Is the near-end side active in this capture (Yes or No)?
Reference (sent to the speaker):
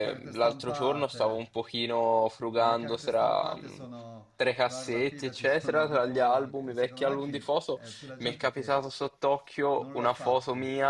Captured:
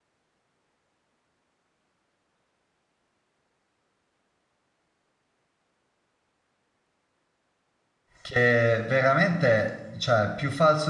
Yes